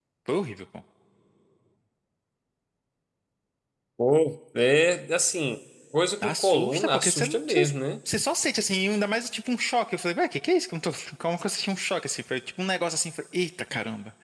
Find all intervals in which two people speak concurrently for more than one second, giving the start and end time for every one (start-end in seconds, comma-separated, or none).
6.2-7.7